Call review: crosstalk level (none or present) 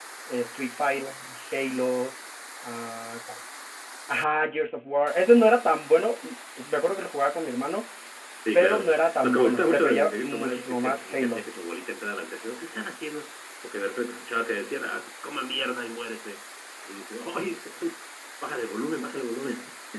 present